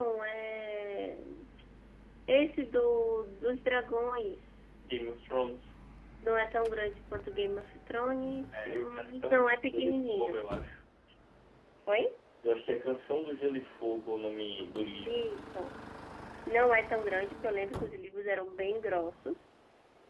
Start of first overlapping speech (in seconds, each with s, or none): 8.5 s